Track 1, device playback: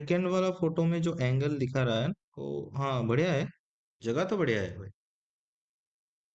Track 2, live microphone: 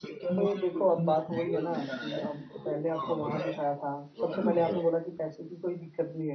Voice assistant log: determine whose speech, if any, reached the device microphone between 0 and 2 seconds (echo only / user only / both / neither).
both